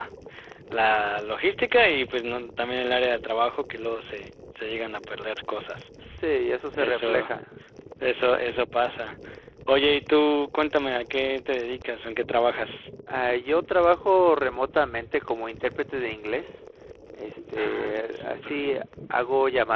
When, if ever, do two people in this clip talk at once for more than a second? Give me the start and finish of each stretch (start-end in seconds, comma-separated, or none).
17.6-18.8